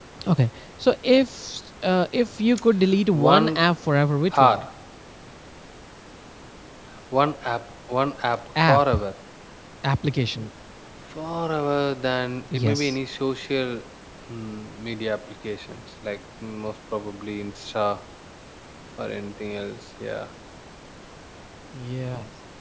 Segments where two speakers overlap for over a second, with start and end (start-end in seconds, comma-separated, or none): none